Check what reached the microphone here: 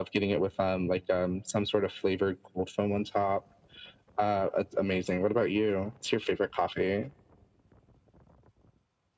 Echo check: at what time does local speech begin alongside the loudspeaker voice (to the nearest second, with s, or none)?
none